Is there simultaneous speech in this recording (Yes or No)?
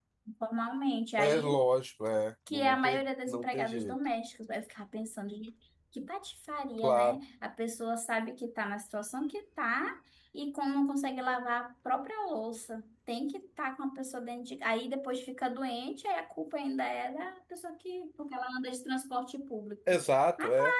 Yes